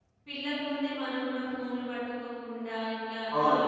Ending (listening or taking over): taking over